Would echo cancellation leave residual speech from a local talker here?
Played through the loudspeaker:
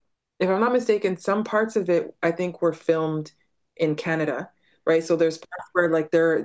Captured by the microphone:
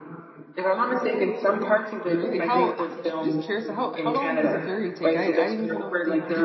Yes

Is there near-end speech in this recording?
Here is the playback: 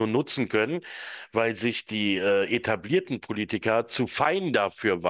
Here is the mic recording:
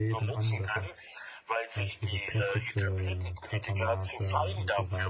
Yes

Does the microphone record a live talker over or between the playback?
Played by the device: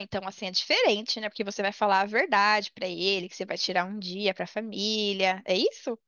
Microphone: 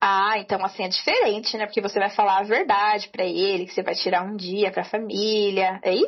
No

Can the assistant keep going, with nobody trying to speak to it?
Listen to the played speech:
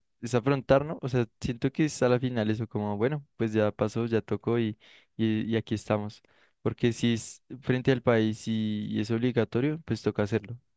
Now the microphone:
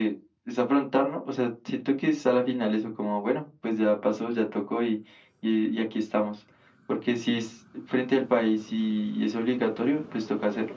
Yes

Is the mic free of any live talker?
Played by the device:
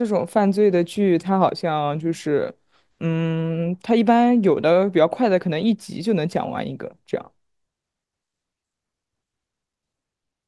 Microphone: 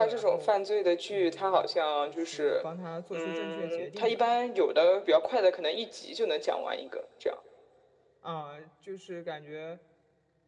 No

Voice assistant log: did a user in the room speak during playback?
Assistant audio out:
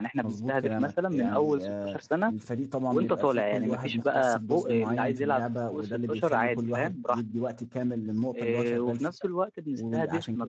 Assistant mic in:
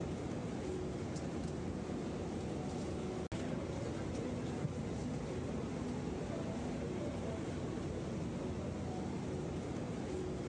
No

